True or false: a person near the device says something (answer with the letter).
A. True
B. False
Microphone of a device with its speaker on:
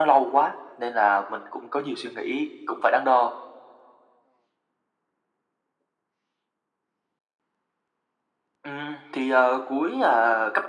B